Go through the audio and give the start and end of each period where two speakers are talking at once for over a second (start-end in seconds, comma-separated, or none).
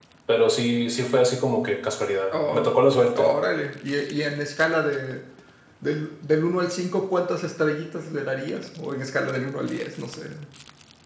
none